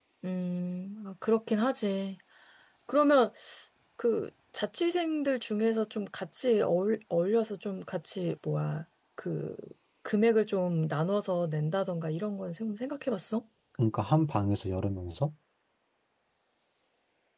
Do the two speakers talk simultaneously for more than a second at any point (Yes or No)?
No